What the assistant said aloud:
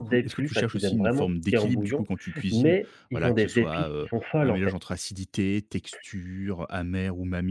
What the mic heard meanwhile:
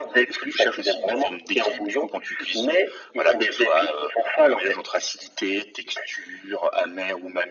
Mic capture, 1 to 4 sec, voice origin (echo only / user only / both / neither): echo only